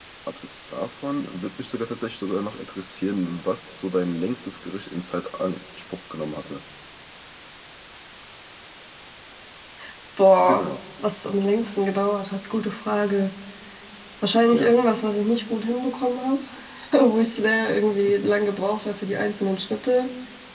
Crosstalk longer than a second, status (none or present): none